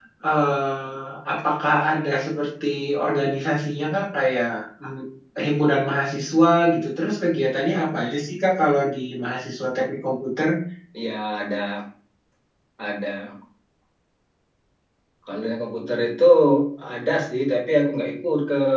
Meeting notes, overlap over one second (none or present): none